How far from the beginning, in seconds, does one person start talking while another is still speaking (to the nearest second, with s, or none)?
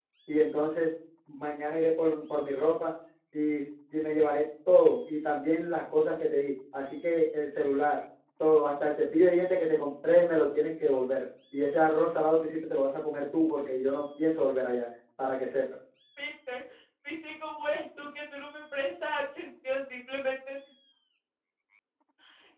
none